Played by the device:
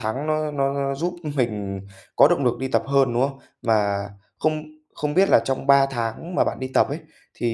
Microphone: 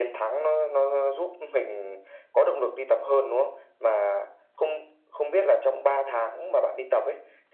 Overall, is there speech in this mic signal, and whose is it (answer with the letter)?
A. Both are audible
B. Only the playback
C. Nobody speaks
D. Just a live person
B